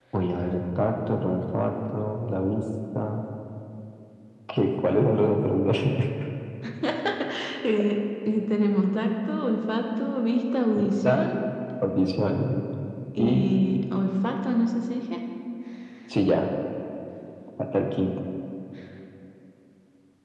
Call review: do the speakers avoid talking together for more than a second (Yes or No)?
Yes